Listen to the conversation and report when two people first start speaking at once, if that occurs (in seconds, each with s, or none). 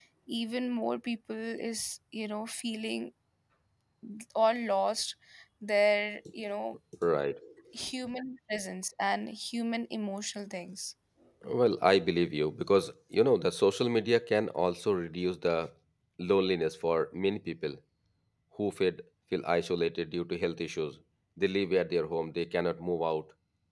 none